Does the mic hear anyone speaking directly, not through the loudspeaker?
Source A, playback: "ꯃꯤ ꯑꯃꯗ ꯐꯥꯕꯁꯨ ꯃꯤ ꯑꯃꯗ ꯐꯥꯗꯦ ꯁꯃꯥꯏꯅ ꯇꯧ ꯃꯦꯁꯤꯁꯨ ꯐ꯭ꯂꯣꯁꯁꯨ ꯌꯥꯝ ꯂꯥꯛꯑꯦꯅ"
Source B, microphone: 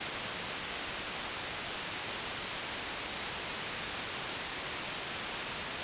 No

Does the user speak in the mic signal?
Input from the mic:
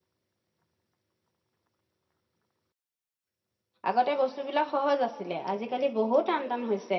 Yes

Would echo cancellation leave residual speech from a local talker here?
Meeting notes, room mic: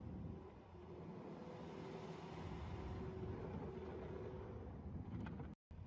No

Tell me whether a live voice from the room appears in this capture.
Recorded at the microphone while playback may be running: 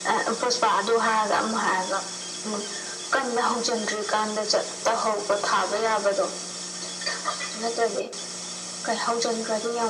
No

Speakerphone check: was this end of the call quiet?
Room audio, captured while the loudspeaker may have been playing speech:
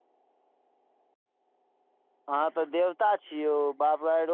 No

